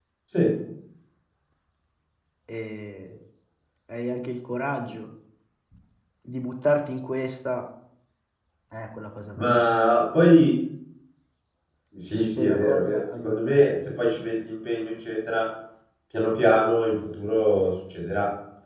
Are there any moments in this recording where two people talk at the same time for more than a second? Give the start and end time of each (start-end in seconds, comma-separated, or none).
12.4-13.6